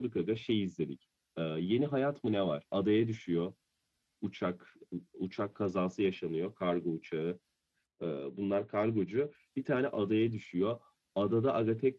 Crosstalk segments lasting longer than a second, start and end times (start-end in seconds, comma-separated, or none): none